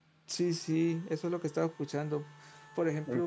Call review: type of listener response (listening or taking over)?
listening